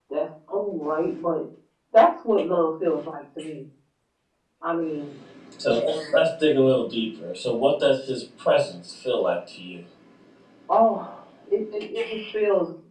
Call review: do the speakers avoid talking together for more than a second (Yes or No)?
Yes